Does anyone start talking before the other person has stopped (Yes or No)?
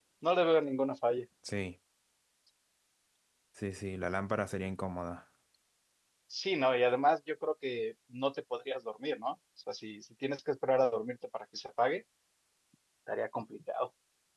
No